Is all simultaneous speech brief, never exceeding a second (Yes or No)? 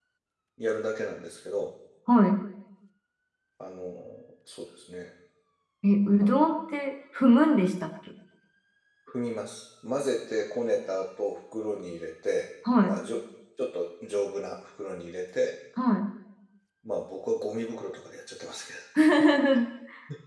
Yes